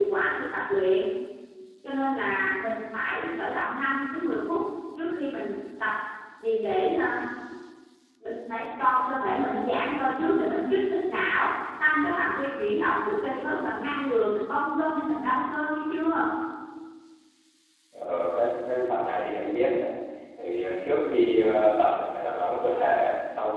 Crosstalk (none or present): none